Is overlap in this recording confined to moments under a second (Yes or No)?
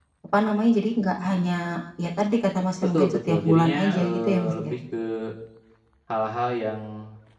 No